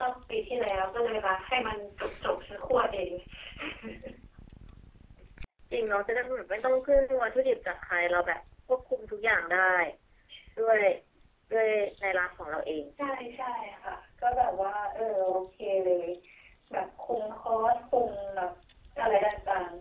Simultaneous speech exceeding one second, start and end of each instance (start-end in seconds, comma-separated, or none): none